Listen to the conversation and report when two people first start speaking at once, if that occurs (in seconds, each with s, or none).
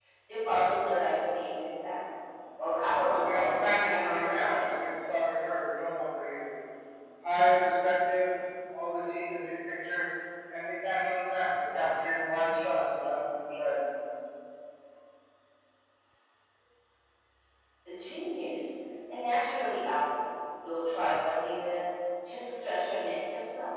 3.2 s